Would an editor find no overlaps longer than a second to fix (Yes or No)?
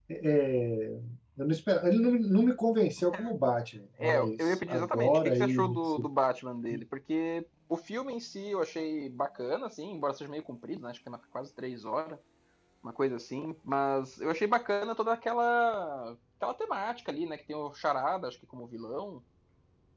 No